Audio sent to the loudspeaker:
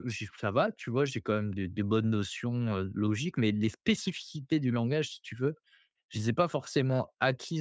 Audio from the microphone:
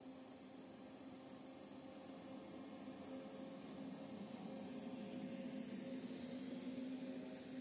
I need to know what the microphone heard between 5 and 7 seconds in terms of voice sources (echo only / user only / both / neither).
neither